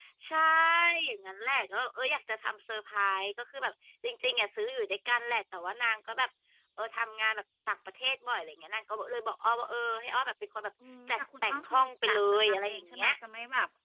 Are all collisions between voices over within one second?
No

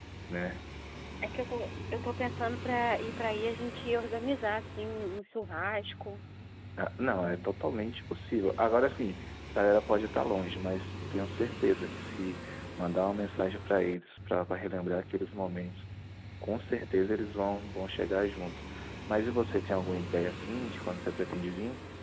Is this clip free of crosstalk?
Yes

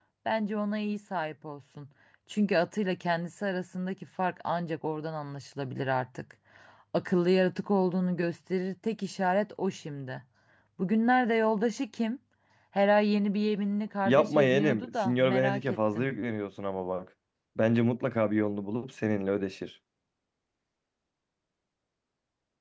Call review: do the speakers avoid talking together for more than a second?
No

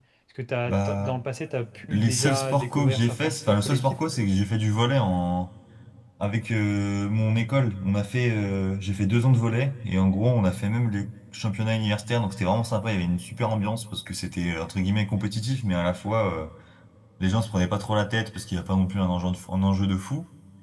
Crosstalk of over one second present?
Yes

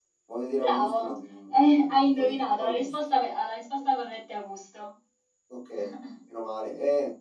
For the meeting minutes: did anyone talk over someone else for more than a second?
Yes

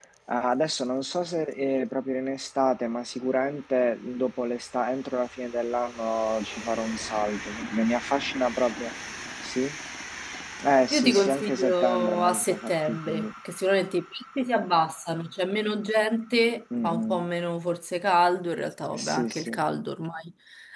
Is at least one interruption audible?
Yes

